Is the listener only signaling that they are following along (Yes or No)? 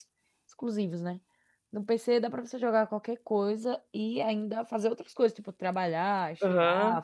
No